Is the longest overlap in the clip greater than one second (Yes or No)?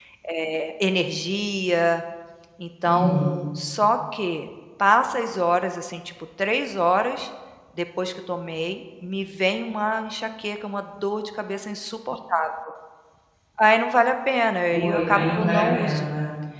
Yes